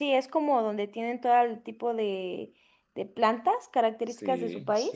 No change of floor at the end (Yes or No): No